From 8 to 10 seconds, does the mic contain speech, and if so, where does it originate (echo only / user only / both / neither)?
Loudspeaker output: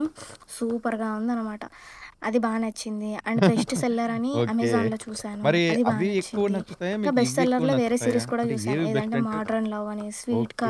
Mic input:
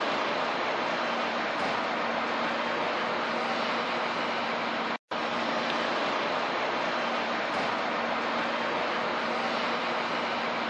neither